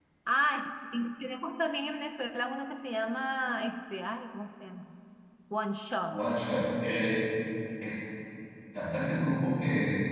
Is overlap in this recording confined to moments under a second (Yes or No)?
Yes